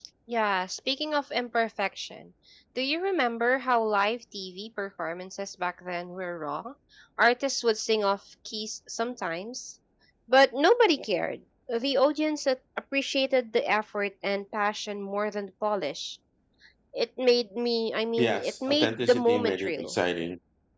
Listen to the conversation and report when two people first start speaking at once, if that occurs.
18.2 s

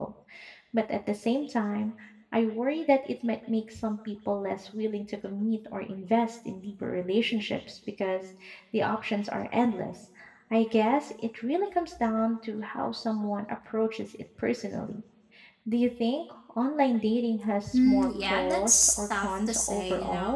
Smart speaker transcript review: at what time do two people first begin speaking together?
17.7 s

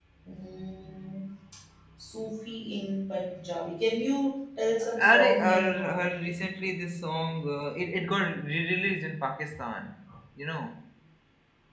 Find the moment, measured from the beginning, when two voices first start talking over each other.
4.8 s

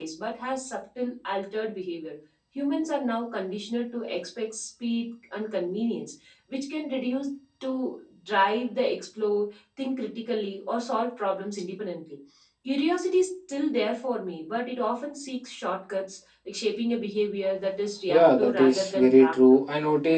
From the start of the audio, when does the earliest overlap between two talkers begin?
18.1 s

